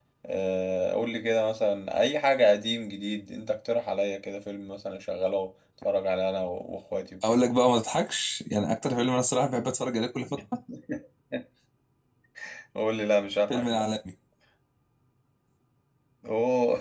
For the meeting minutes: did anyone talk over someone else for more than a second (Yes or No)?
No